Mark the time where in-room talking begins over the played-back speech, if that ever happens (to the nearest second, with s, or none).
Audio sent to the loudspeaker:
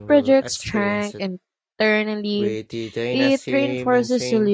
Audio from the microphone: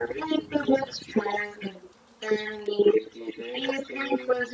none